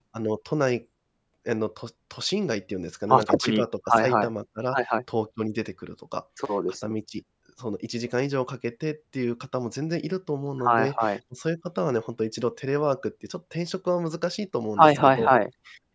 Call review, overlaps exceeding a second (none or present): present